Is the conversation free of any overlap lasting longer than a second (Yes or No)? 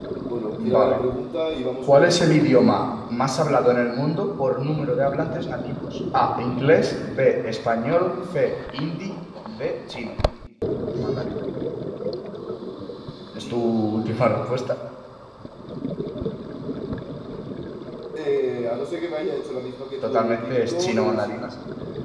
No